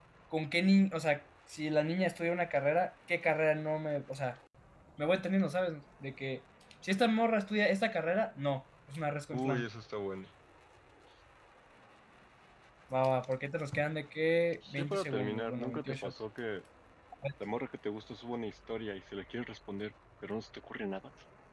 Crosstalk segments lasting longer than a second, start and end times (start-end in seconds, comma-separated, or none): 14.8-16.1